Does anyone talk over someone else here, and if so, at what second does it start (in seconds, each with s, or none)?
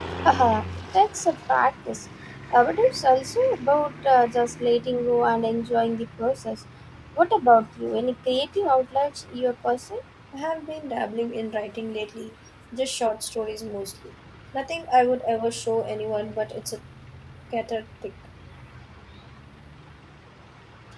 none